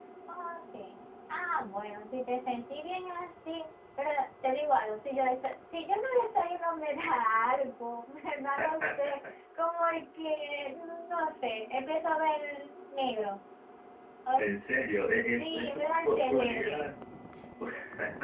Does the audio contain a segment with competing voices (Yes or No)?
Yes